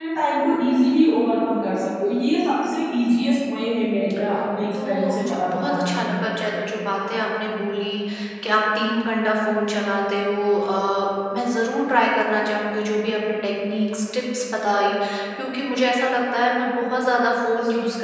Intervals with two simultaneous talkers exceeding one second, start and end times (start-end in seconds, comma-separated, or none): 4.8-6.2